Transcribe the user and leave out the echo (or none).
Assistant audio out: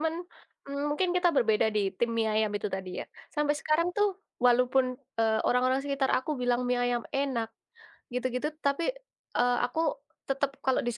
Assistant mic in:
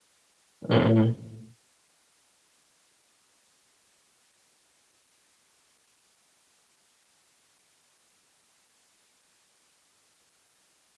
Mhm.